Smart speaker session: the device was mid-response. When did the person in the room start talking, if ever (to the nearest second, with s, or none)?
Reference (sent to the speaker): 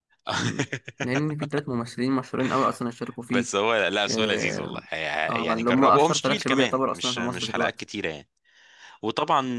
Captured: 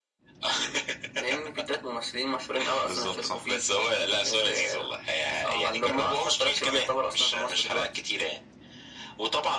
3 s